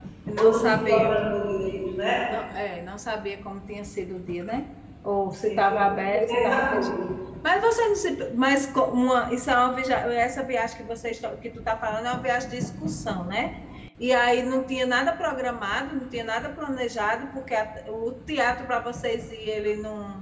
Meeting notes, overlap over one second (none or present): present